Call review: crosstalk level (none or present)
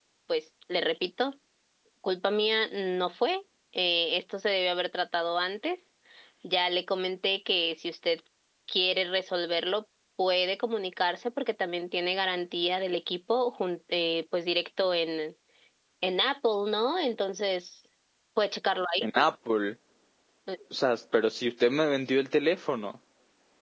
none